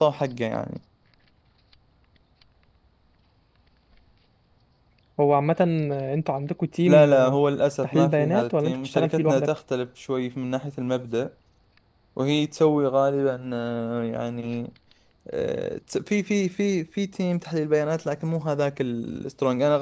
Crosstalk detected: Yes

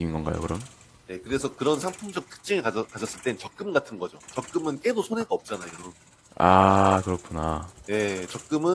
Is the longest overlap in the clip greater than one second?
No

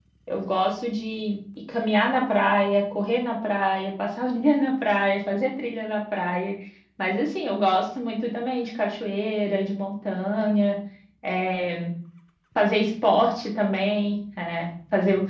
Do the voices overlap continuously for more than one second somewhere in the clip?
No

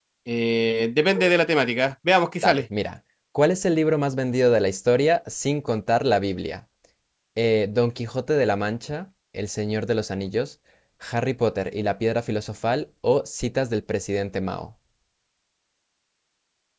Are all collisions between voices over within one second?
Yes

